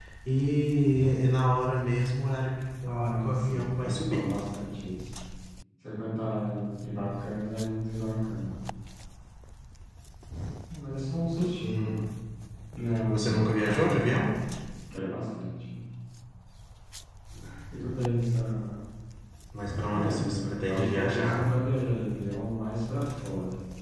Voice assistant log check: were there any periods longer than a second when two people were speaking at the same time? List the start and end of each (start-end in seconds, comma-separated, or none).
2.8-4.3, 13.1-14.3, 19.9-21.5